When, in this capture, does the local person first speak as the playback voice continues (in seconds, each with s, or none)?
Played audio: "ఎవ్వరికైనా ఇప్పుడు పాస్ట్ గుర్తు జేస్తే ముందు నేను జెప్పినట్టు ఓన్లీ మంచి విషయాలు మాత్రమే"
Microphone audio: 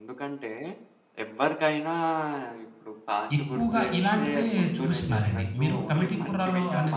3.4 s